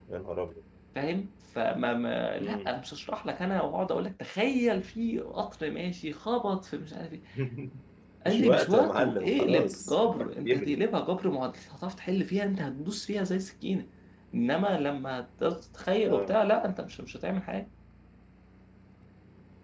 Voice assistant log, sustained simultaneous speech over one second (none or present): present